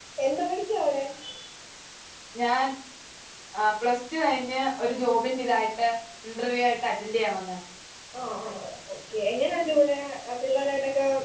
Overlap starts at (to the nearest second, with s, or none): none